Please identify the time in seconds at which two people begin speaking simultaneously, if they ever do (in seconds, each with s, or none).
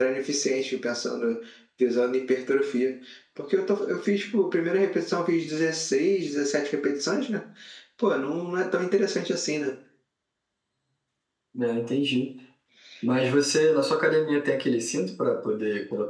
none